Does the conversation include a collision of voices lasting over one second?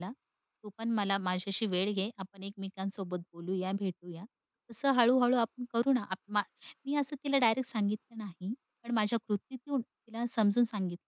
No

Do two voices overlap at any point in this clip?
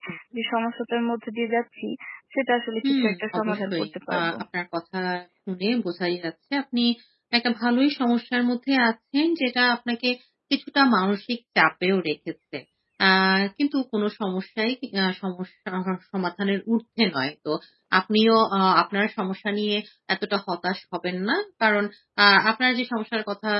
Yes, from 2.8 s

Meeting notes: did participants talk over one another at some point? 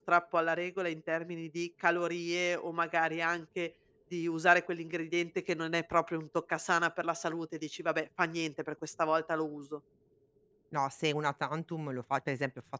No

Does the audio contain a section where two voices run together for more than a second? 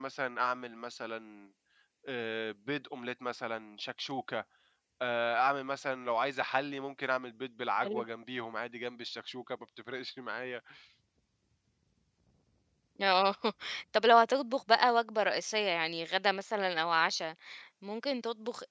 No

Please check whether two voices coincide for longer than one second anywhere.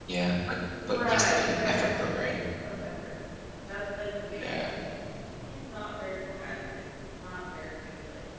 Yes, from 0.9 s

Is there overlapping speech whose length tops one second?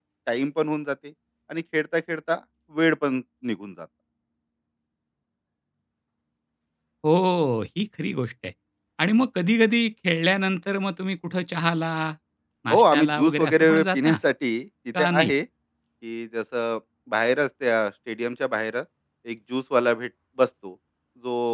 Yes, from 12.7 s

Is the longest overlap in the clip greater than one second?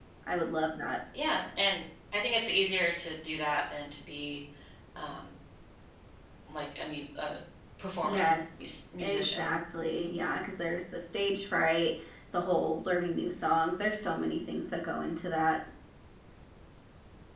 No

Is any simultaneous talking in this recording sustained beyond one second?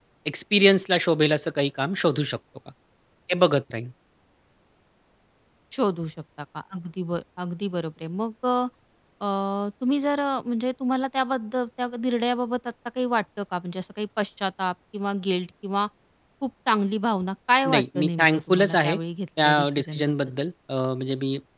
Yes, from 17.6 s

